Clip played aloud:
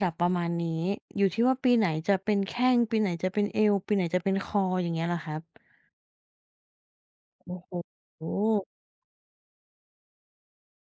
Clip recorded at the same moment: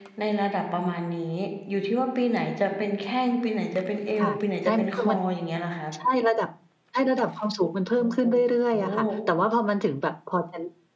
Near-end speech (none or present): present